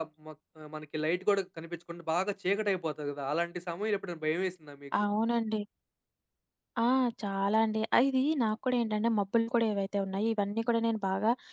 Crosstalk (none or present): none